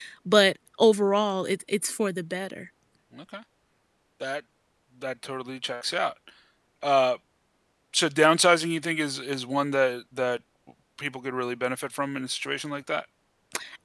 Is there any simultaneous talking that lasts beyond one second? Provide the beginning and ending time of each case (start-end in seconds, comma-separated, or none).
none